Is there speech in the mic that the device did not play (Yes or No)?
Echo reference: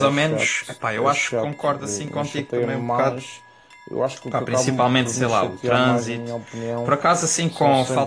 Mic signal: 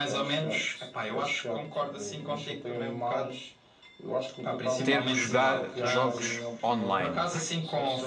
Yes